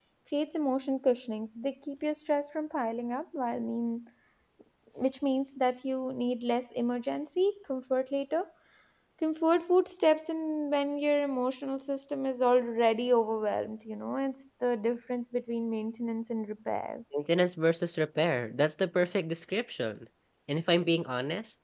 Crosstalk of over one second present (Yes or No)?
No